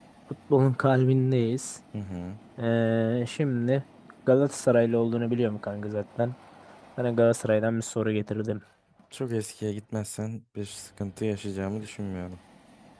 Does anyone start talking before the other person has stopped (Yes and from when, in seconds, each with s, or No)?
No